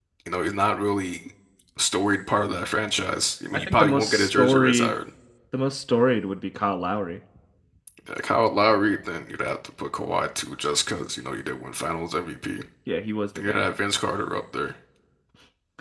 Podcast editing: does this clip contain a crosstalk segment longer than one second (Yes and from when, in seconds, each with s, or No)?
Yes, from 3.5 s